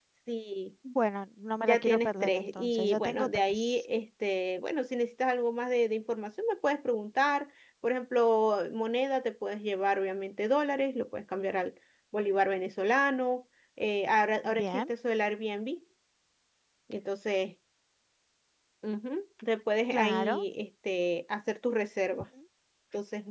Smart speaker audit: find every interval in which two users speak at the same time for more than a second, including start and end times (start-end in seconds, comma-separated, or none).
1.6-3.8